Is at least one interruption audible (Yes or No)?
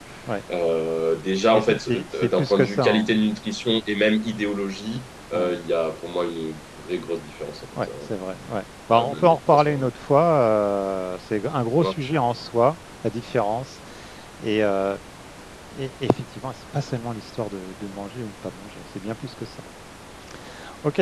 Yes